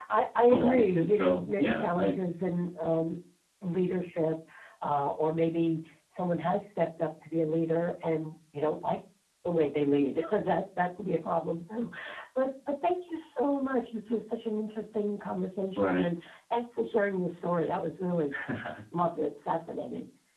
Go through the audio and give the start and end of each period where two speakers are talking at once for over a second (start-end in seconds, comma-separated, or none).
0.5-2.2